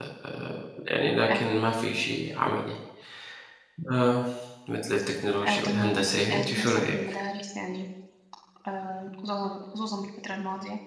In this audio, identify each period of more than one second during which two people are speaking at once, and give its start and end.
5.4-7.0

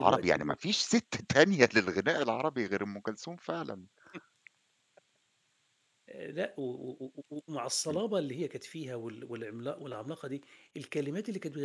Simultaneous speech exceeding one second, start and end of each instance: none

